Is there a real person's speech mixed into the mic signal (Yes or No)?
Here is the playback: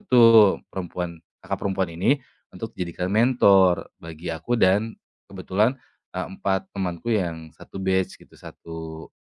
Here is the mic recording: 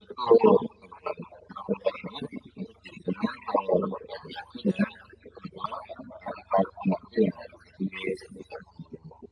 No